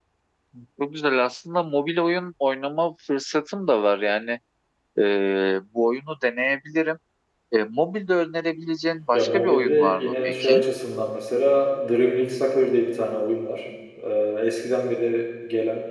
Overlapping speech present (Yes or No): Yes